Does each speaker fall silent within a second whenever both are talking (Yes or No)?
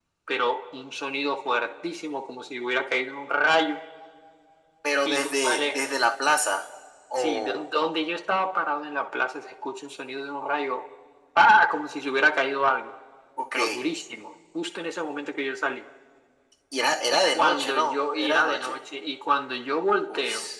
No